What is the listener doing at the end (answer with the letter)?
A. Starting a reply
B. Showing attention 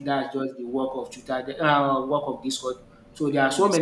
B